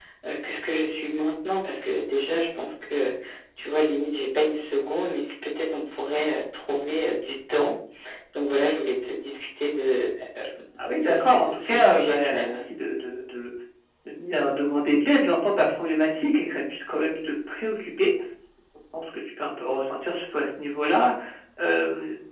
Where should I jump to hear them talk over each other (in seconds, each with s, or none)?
10.8 s